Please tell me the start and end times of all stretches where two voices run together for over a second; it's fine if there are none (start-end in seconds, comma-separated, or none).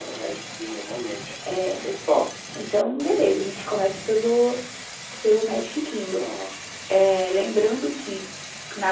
none